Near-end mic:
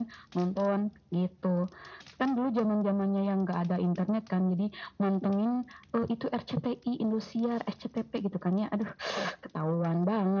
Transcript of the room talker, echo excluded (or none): none